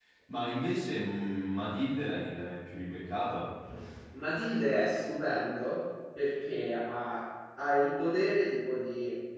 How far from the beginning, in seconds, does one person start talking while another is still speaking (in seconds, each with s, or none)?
none